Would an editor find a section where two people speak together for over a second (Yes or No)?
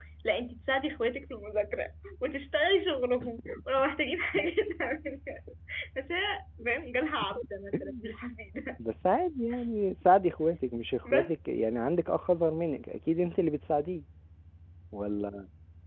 No